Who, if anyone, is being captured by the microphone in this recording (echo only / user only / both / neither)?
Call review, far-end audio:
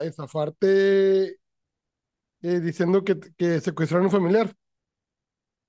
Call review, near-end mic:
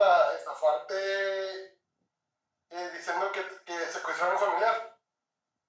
echo only